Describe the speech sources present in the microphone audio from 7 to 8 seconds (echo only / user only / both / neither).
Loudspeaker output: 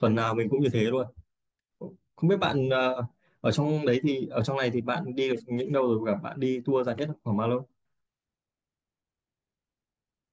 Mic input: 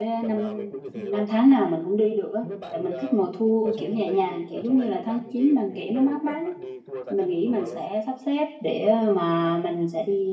both